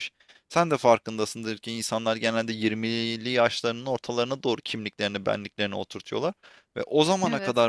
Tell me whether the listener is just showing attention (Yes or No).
Yes